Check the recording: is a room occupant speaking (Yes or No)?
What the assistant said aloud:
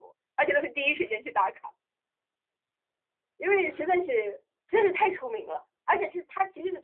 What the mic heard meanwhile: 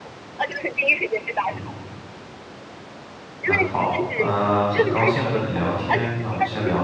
Yes